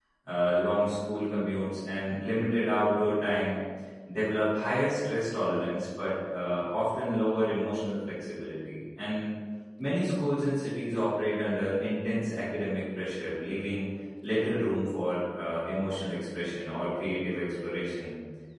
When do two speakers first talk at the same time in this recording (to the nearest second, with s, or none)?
none